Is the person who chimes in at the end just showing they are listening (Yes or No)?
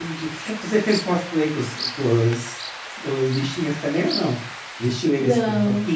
Yes